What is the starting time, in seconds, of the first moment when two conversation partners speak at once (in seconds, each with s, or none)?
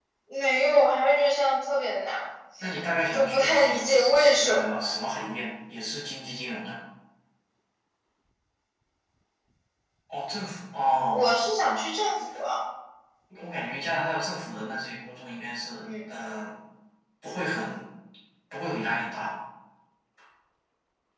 3.1 s